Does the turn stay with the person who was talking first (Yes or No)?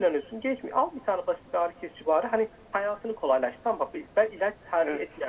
Yes